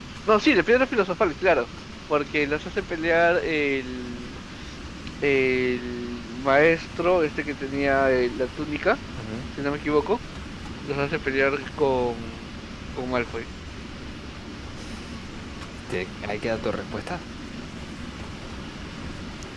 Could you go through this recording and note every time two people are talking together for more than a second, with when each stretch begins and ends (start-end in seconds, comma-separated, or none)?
none